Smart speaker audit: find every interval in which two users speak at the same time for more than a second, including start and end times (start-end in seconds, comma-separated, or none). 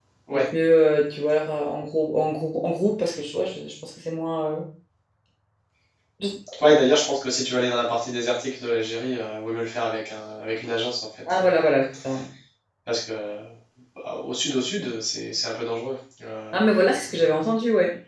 none